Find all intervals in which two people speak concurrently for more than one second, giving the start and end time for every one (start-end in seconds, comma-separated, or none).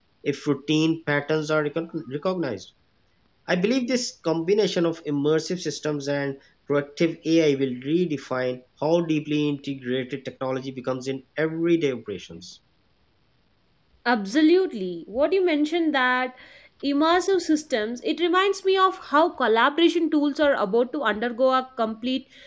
none